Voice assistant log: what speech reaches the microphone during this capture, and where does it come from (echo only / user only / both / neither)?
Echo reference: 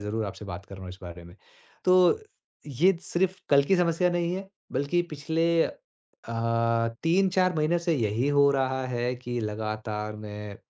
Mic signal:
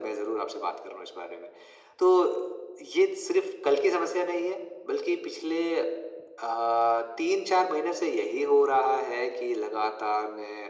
echo only